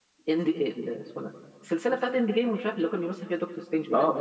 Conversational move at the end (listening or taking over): taking over